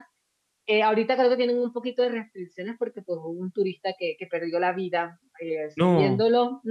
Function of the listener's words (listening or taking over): listening